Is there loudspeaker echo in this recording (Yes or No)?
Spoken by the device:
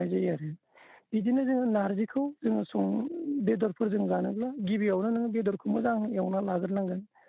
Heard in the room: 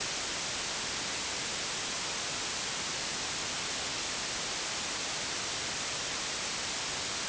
No